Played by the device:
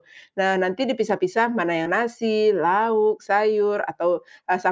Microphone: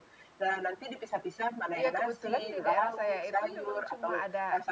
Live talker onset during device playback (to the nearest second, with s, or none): 2 s